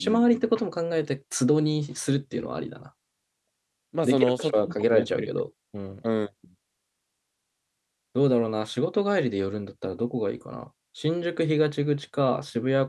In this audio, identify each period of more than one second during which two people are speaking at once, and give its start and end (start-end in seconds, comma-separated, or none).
4.0-5.3